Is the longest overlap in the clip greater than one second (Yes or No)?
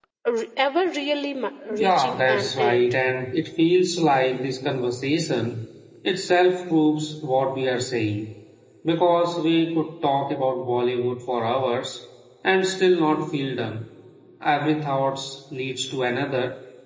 Yes